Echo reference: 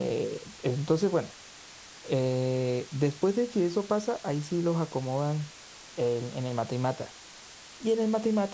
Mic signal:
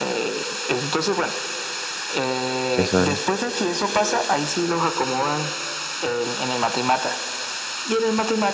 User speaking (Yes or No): Yes